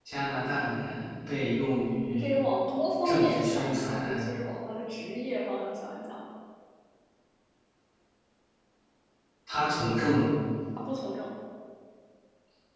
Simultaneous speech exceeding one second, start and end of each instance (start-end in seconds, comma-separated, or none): 3.0-4.3